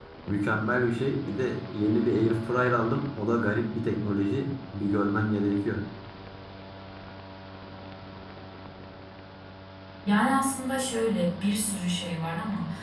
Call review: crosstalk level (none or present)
none